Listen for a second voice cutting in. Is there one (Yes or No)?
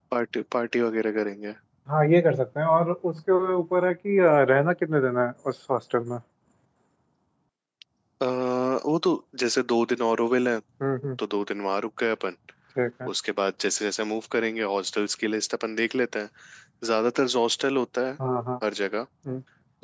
No